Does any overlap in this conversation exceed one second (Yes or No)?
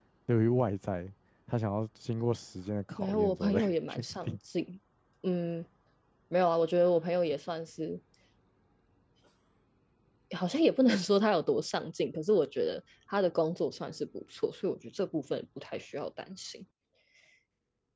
Yes